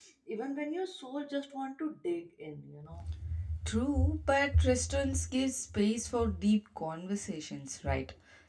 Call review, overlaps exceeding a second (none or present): none